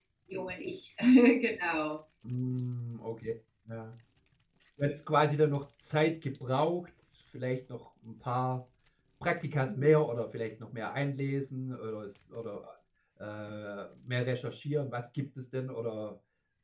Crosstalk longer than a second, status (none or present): none